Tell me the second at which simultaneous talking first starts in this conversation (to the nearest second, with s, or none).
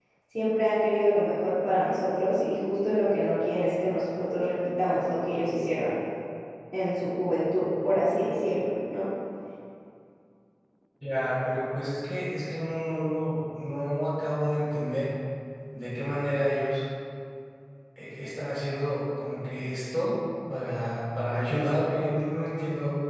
none